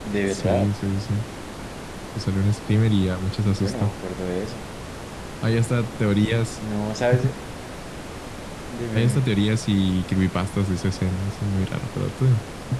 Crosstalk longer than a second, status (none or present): none